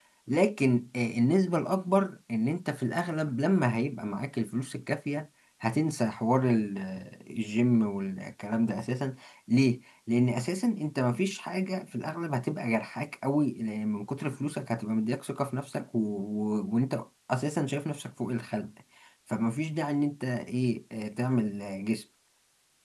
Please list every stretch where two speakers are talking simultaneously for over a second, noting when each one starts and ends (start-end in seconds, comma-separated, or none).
none